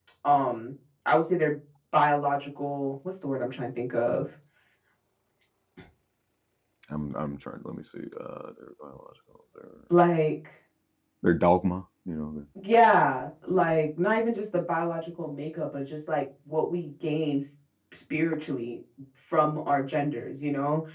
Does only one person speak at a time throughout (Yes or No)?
Yes